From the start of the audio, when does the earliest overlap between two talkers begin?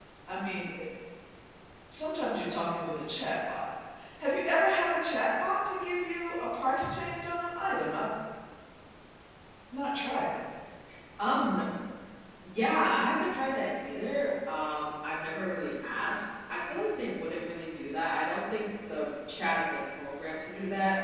none

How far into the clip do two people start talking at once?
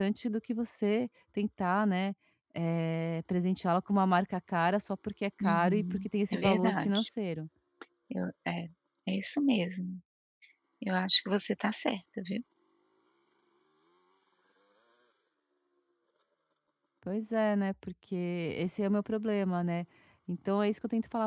5.4 s

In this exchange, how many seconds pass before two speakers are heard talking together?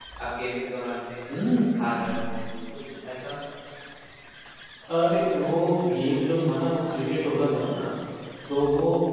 none

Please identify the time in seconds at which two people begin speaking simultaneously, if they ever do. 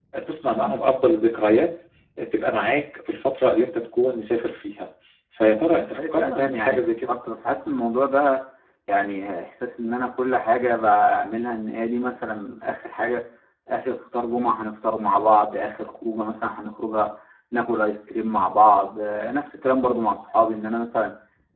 5.6 s

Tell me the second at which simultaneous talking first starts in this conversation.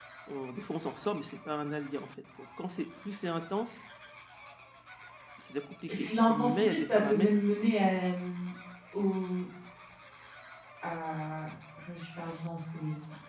6.0 s

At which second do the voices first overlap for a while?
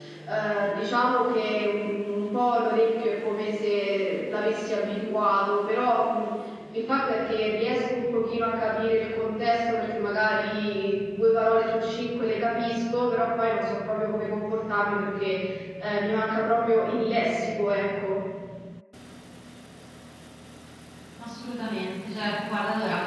none

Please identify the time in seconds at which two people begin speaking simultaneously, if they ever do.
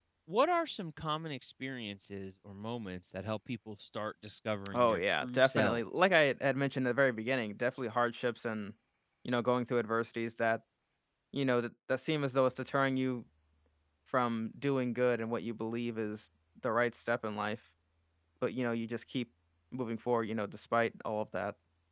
4.7 s

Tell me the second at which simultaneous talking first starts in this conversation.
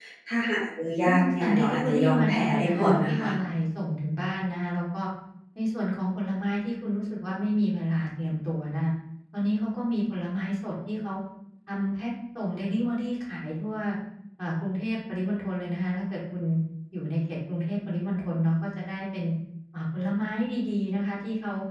1.0 s

